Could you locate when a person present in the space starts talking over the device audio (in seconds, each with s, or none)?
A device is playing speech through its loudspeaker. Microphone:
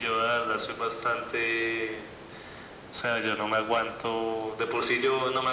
none